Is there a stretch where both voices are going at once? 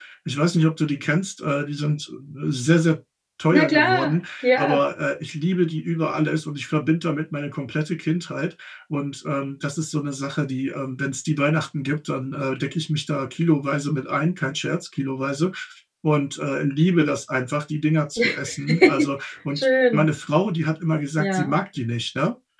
Yes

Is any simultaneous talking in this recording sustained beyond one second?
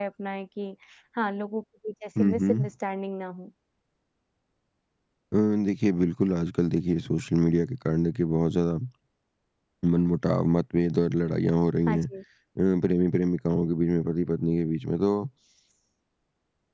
No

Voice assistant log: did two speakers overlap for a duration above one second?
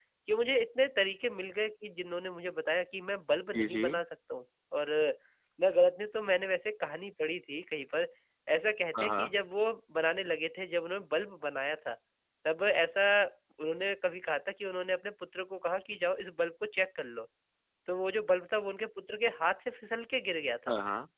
No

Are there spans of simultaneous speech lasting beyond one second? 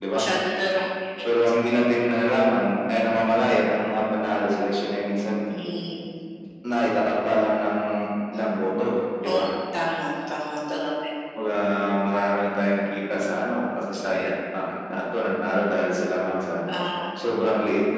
No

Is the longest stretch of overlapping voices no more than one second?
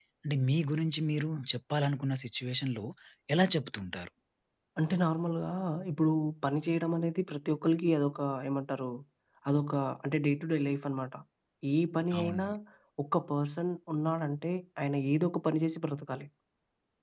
Yes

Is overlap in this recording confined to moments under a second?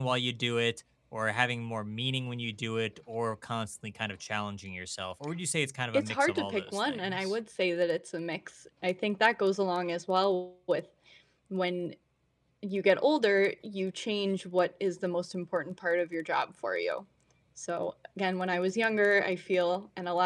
No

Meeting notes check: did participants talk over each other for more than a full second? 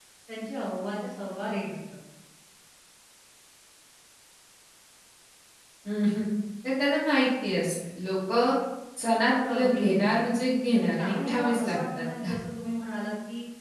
Yes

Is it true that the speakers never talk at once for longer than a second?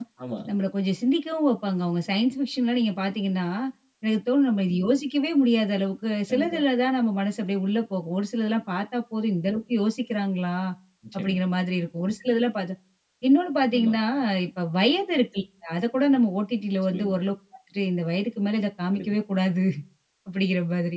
Yes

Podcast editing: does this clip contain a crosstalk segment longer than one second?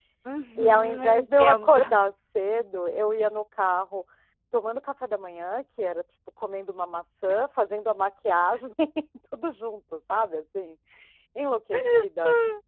Yes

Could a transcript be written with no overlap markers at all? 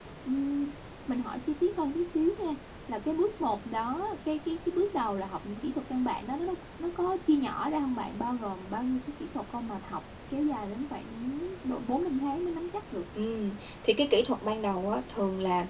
Yes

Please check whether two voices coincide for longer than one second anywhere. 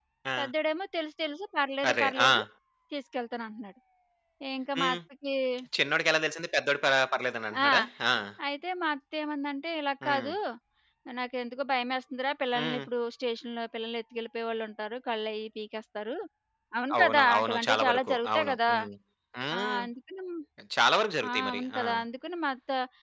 Yes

